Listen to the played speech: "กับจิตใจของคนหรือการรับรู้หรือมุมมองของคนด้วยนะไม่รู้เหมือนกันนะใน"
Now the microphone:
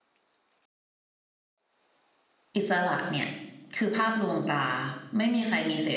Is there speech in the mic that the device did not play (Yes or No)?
Yes